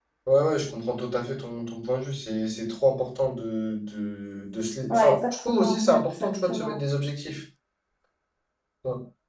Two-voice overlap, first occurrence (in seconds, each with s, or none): 4.9 s